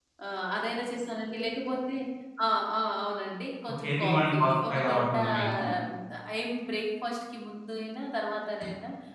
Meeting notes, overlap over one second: present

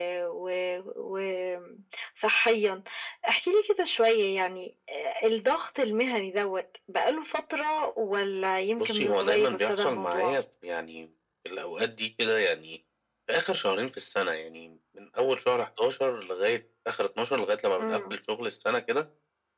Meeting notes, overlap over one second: present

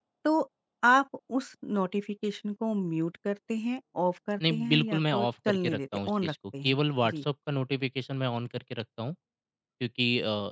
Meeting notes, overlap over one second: present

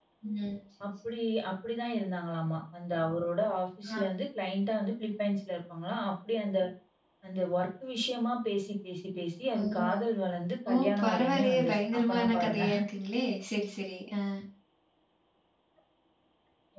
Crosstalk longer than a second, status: present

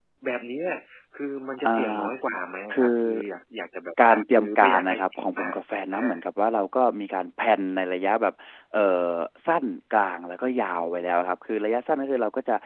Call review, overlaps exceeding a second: present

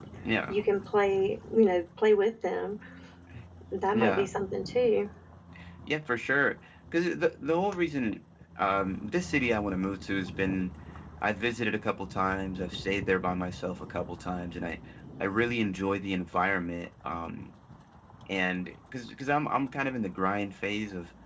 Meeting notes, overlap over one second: none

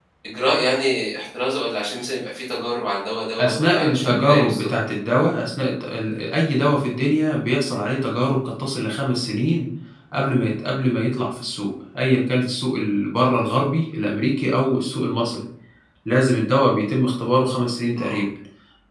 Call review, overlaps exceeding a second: present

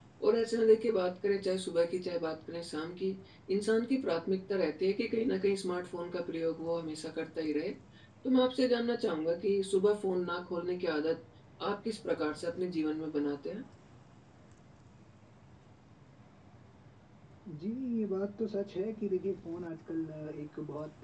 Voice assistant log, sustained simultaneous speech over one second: none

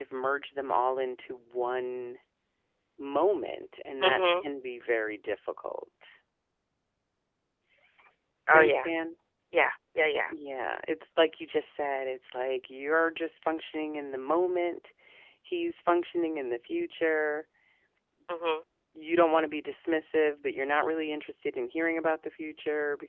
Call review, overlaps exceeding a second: none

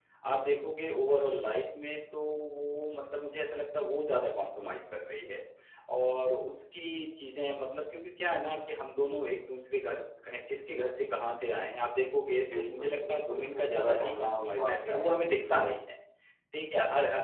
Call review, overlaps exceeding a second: present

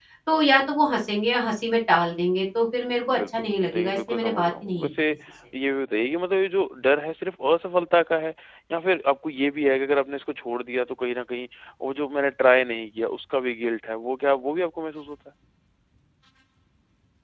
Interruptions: present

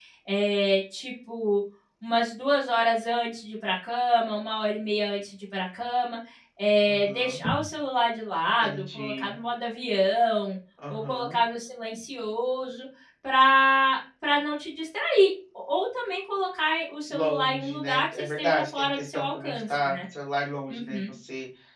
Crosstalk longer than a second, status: present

